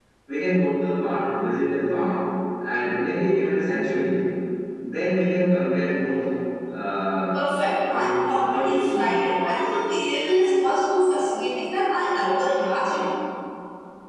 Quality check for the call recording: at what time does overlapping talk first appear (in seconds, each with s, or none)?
7.9 s